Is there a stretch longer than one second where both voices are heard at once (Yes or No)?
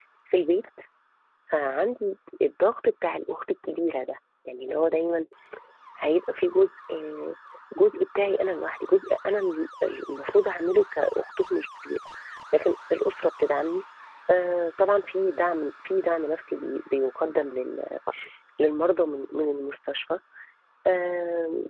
No